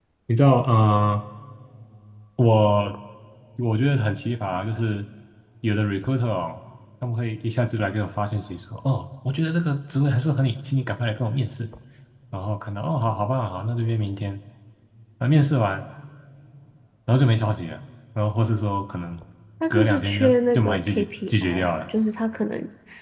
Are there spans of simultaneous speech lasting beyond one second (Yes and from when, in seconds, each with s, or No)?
Yes, from 19.7 s